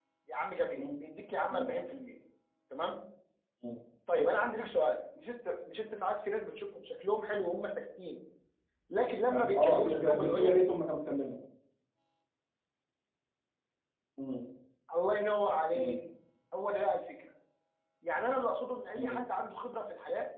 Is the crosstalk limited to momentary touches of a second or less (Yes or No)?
No